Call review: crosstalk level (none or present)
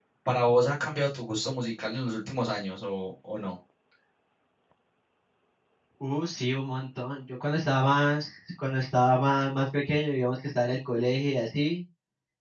none